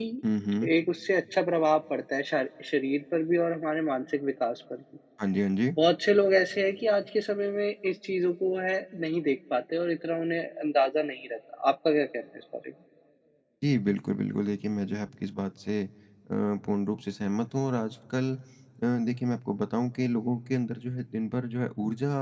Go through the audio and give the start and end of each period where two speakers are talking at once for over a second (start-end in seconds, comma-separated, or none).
none